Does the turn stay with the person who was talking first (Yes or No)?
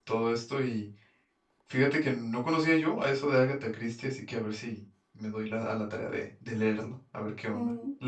No